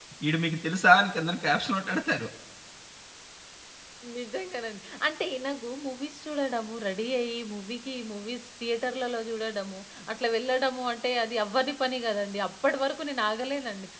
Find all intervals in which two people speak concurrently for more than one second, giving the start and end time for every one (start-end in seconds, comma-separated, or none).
none